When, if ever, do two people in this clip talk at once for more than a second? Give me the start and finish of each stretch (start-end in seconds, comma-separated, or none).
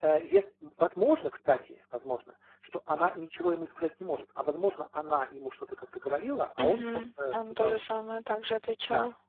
6.6-7.8